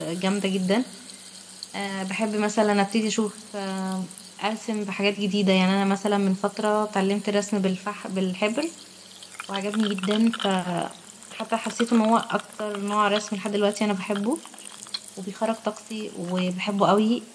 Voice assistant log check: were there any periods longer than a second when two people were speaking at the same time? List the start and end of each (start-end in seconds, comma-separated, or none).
none